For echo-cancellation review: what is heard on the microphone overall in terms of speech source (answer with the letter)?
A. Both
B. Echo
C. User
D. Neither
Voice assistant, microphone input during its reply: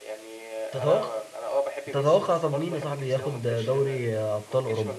A